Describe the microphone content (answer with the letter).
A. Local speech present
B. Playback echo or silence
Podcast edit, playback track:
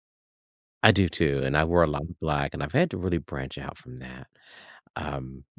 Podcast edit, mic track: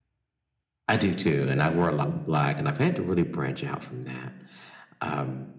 B